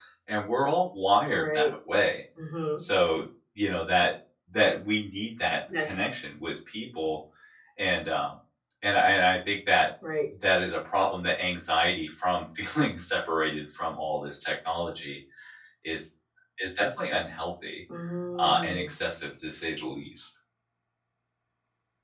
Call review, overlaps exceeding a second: none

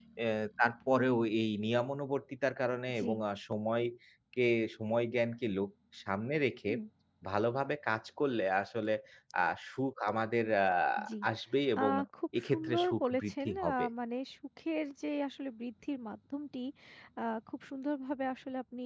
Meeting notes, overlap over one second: present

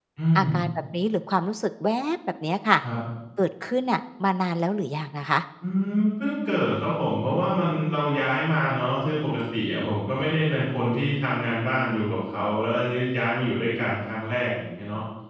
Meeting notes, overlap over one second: none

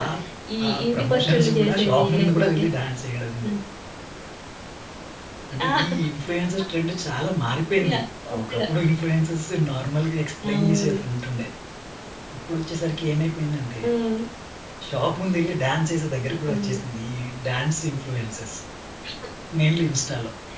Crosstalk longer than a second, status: present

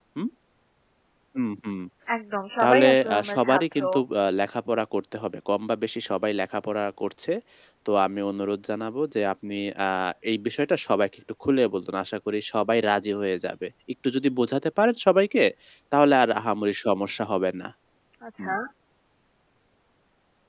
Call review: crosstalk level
present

